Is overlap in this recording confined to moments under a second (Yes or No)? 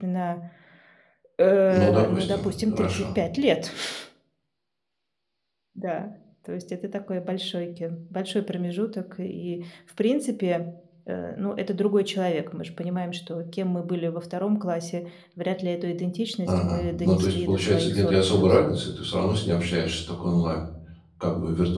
No